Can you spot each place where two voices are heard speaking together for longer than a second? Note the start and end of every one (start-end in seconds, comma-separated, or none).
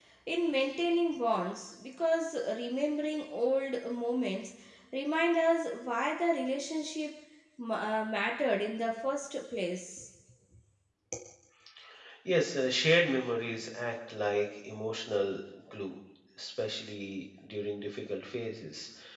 none